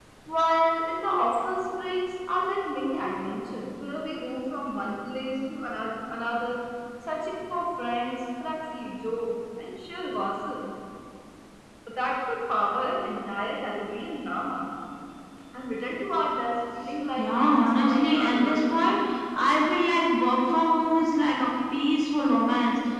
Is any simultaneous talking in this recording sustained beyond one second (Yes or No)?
Yes